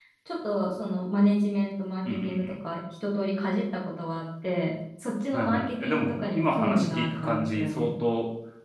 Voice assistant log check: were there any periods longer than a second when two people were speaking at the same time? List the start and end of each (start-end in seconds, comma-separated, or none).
5.3-7.9